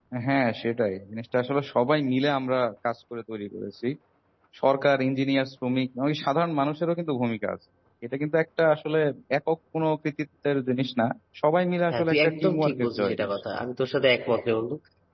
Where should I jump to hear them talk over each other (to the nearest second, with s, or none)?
12 s